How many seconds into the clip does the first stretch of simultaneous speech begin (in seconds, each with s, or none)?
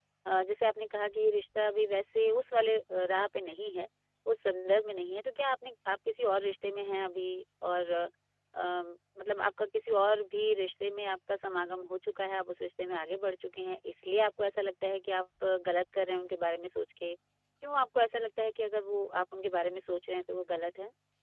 none